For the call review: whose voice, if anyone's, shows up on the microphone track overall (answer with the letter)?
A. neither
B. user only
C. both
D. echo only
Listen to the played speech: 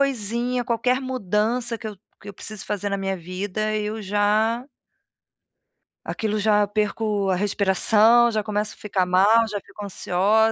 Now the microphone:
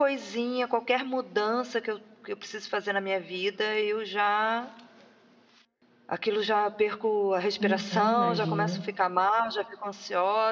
C